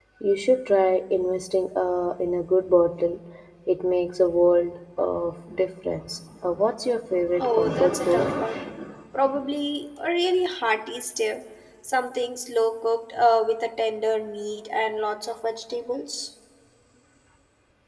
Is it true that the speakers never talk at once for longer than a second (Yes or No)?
No